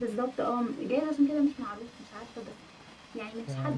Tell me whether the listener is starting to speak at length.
No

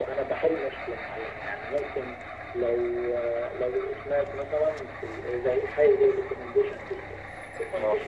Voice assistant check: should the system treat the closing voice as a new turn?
No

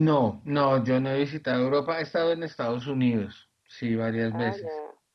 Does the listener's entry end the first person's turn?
Yes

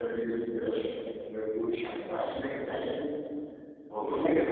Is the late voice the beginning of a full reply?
No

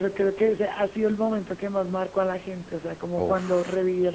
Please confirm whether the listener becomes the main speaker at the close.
No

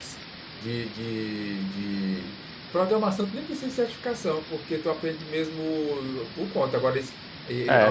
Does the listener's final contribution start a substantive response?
Yes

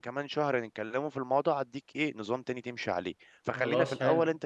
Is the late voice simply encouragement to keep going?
Yes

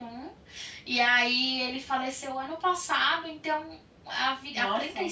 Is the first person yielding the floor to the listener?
No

